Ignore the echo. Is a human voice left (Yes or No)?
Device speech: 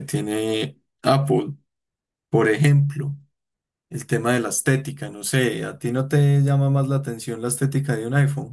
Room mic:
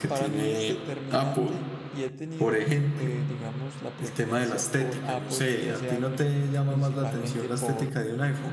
Yes